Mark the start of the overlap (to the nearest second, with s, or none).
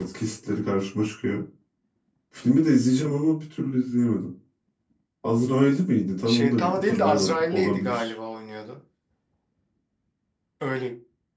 6 s